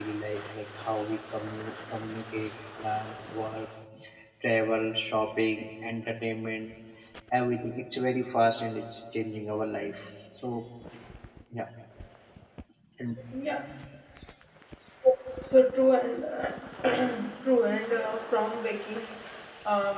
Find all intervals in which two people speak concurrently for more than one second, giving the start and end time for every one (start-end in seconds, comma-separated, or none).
none